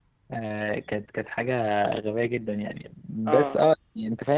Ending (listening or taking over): listening